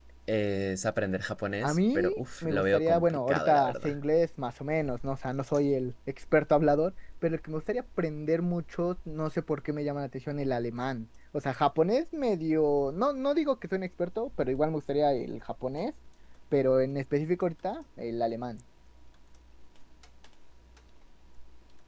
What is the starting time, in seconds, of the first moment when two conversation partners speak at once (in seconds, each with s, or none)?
1.6 s